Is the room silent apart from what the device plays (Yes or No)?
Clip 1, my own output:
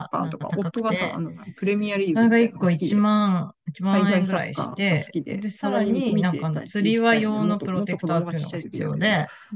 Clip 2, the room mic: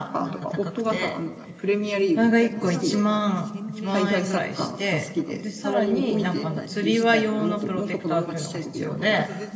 No